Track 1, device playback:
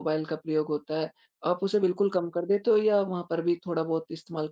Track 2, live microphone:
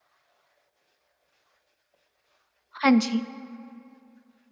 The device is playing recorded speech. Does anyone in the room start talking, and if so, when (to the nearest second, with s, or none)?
3 s